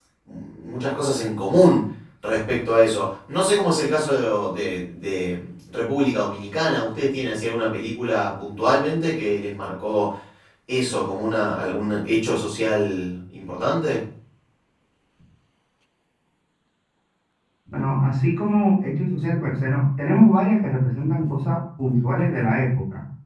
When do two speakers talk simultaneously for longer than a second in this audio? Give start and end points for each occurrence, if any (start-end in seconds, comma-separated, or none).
none